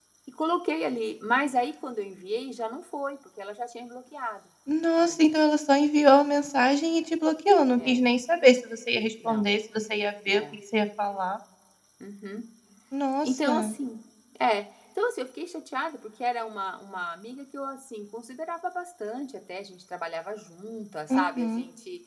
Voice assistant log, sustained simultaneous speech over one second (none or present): none